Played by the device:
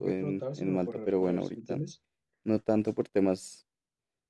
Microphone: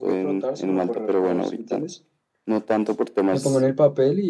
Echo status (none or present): present